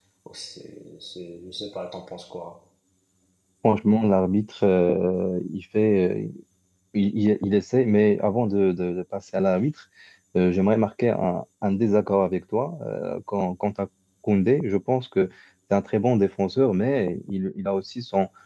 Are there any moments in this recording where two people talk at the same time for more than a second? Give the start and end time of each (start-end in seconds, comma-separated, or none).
none